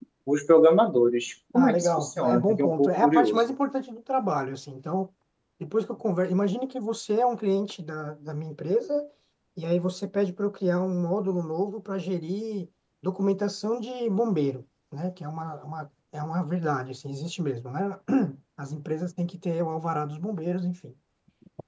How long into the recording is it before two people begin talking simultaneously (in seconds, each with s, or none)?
1.5 s